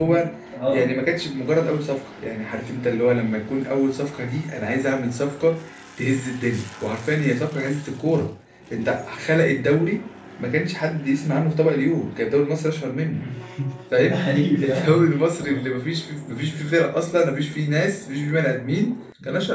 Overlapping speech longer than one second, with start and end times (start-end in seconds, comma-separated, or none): none